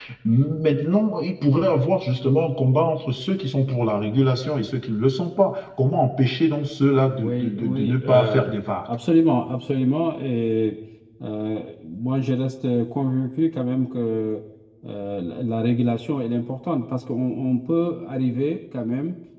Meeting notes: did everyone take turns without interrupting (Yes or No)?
No